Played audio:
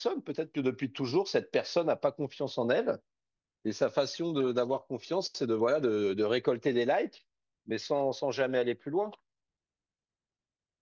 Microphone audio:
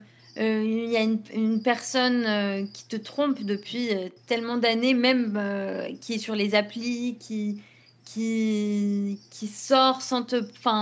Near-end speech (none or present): present